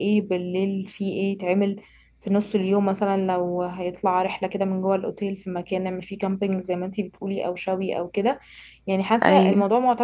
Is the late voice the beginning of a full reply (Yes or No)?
No